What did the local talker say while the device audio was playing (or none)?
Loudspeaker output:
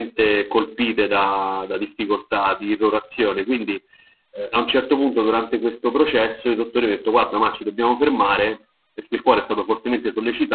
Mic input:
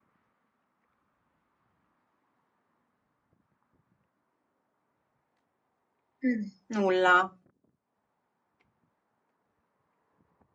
Mm, Nulla.